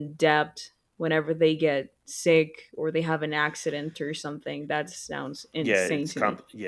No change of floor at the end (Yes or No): No